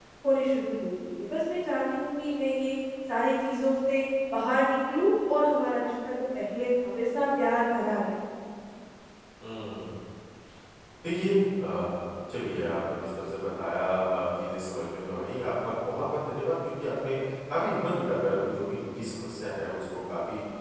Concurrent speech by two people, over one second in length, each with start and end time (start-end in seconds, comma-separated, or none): none